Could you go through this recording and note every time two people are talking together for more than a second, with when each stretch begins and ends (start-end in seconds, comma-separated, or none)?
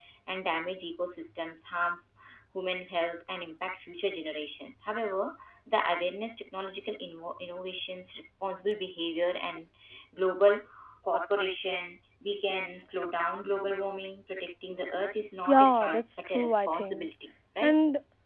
15.5-17.1